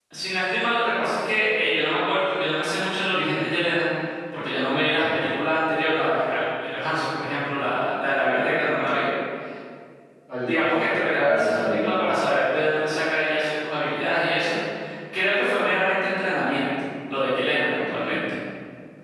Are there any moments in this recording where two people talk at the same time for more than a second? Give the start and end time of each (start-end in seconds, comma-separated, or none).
10.5-12.2